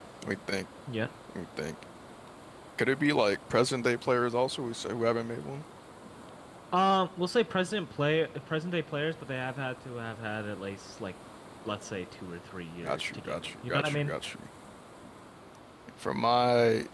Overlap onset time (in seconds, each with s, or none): 12.8 s